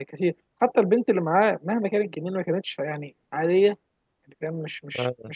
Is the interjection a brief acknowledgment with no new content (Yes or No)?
Yes